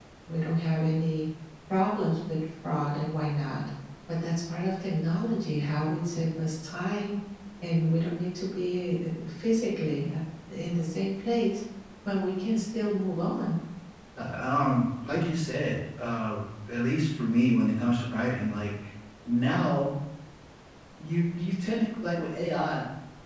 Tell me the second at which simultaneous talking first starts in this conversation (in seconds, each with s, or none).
none